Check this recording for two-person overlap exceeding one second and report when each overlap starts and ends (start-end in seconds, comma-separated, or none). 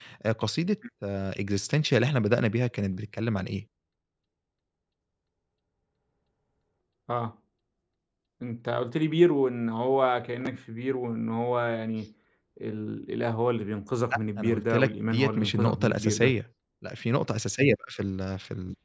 14.4-16.3